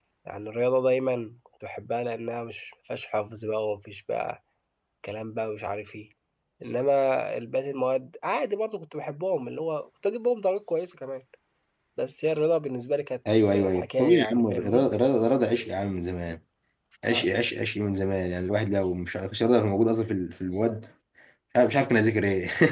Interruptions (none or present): present